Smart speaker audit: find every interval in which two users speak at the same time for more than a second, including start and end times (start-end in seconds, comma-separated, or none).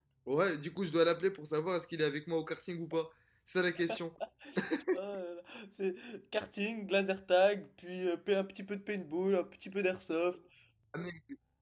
none